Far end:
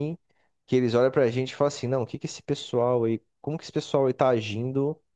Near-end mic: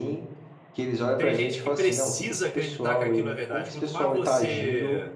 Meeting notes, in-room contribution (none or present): present